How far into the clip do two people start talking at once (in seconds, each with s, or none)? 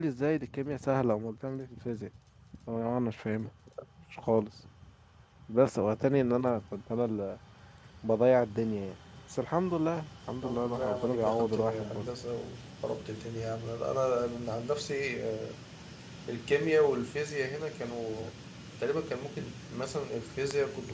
10.4 s